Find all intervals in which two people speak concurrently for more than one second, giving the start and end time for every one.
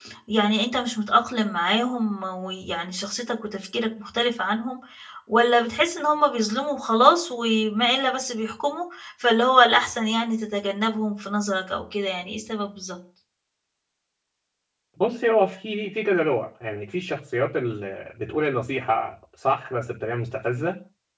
none

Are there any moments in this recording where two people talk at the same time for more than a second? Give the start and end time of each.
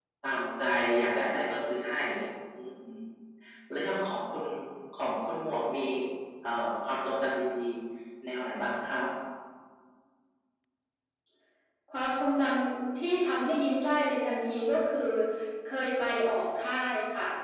none

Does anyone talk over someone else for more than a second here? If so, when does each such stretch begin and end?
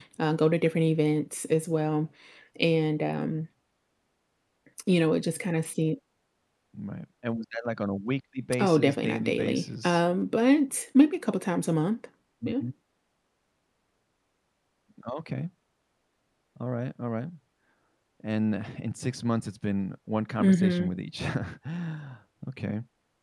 8.6-10.0

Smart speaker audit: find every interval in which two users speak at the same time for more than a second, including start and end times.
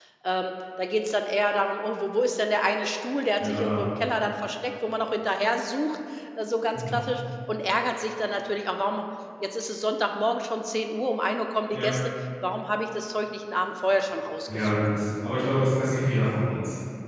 none

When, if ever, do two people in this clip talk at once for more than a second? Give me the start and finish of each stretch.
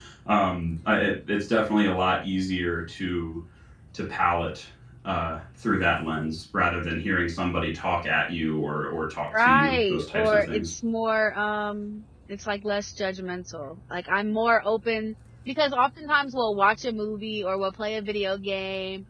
9.4-10.7

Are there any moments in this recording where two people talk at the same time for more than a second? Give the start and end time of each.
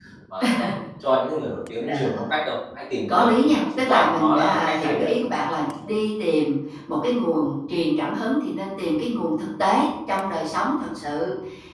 3.1-5.1

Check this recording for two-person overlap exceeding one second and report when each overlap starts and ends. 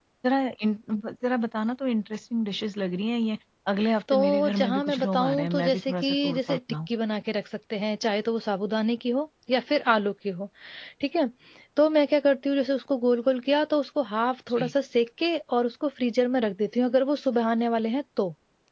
4.1-6.6

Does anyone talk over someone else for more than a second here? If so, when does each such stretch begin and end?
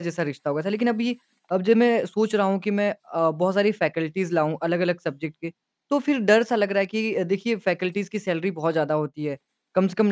none

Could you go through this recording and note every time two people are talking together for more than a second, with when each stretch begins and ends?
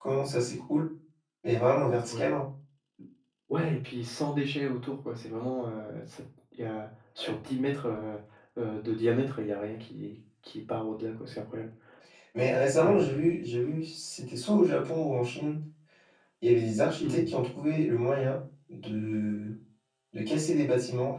none

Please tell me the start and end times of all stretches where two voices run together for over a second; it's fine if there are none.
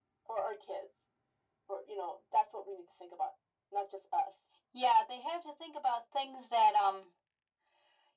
none

